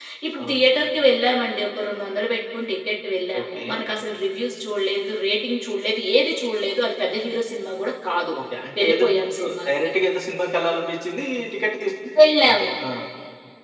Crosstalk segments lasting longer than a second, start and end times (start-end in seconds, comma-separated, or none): none